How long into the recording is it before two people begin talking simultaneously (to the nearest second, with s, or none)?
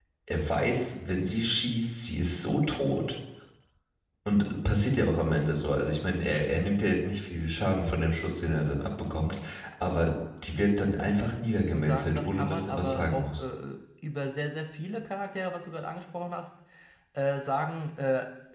12 s